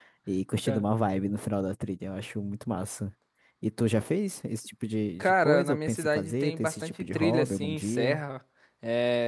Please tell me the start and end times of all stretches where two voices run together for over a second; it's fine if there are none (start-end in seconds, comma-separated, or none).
5.2-8.2